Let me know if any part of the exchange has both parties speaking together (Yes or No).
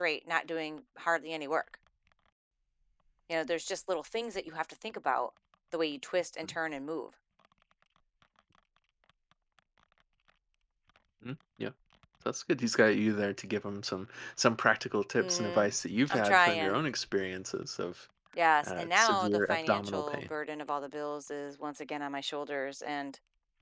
Yes